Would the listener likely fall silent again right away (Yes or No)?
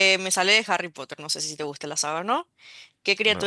Yes